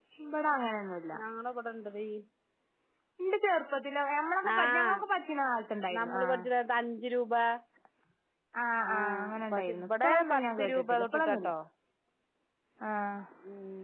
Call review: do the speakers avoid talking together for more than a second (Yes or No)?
No